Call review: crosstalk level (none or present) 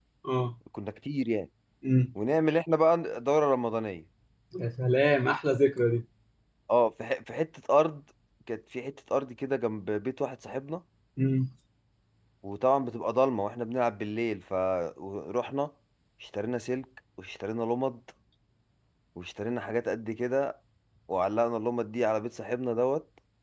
none